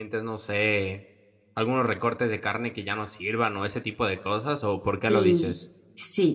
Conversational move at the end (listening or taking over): taking over